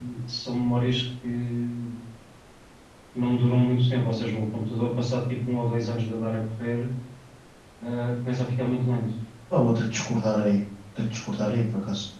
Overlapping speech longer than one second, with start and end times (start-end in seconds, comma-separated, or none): none